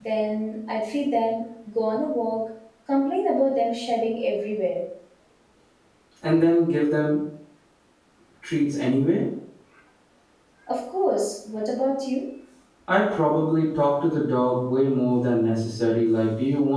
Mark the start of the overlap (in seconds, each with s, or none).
none